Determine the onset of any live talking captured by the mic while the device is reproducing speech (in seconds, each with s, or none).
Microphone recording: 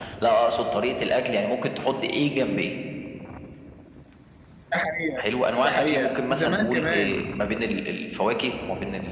4.7 s